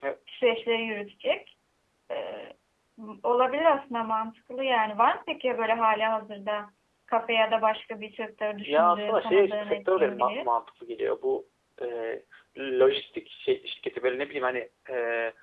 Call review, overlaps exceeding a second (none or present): present